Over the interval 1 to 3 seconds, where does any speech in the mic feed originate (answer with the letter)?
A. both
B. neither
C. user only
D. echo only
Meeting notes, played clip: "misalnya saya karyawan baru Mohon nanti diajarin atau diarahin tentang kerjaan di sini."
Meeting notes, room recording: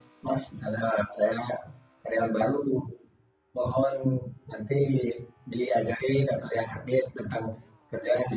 D